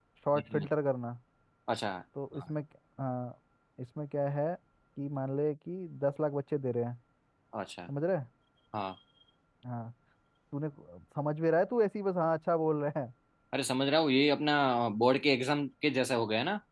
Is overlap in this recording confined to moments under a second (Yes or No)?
Yes